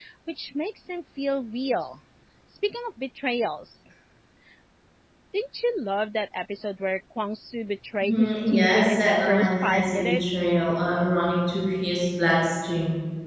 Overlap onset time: 8 s

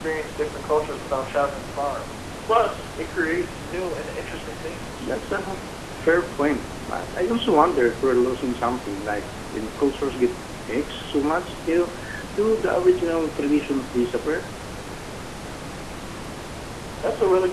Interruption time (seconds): none

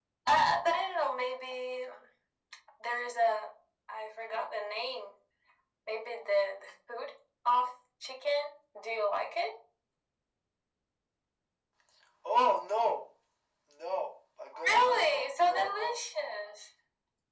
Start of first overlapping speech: 15 s

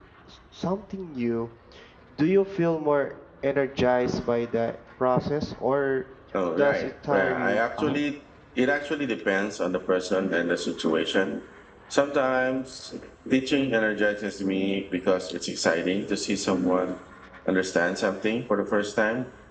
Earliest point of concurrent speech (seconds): 7 s

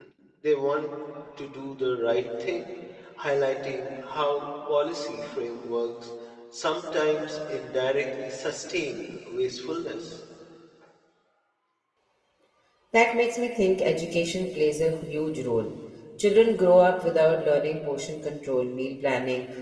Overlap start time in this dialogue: none

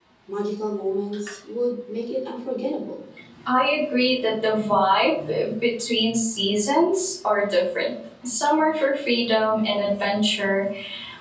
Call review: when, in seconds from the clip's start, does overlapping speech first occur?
none

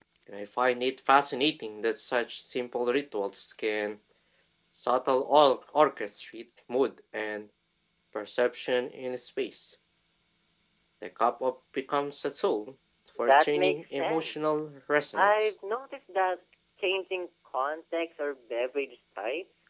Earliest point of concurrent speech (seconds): 13 s

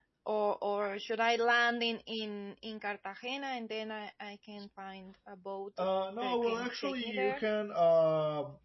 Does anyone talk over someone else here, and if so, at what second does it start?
6 s

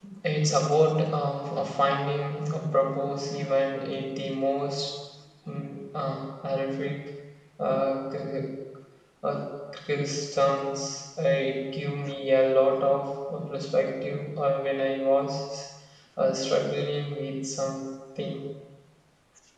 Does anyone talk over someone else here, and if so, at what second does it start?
none

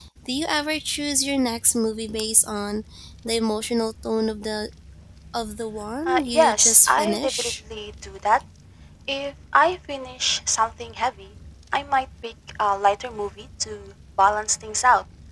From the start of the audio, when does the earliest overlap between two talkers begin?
6 s

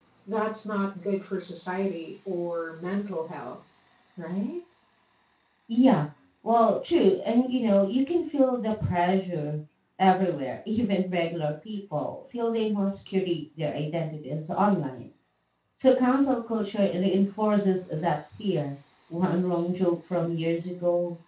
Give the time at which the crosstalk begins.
none

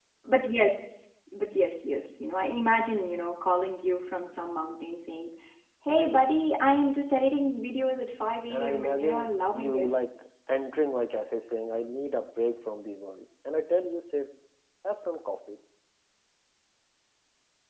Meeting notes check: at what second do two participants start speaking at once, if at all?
9 s

